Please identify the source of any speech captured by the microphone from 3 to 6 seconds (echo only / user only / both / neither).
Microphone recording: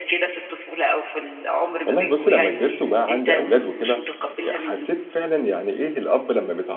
both